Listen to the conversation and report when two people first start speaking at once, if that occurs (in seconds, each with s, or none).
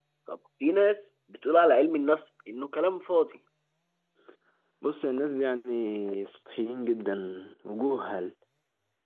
none